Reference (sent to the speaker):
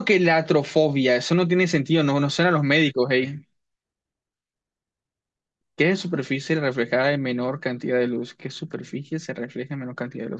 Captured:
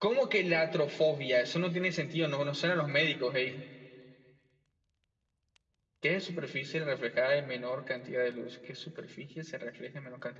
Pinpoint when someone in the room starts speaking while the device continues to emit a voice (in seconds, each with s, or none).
none